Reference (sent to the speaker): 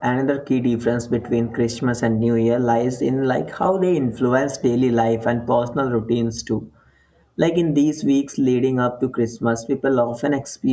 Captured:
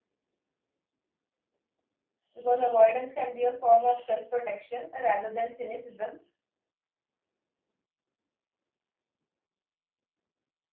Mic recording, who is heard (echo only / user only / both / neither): user only